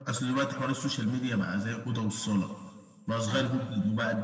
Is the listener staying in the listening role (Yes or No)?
Yes